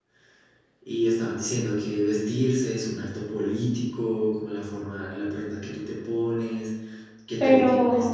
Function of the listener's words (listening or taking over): listening